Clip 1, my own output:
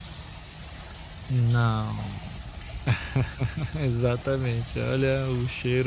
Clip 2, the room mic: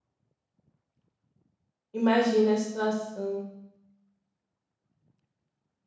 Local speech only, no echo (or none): imagina a situação.